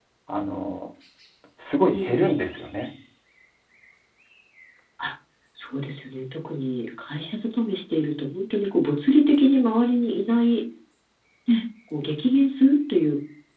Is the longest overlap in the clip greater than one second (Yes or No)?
No